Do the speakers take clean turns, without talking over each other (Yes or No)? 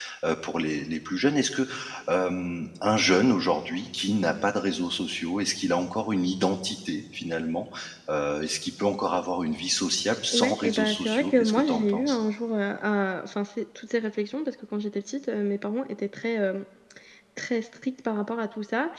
No